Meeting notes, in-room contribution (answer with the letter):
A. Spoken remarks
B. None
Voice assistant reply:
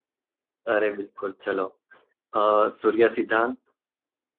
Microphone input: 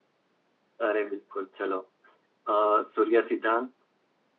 B